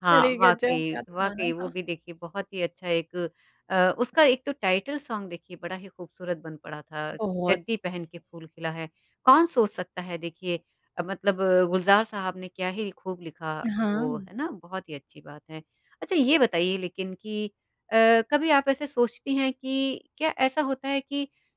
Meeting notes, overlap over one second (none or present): present